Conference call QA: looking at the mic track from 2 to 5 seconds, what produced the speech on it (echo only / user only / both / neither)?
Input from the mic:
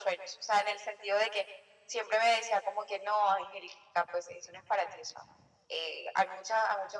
echo only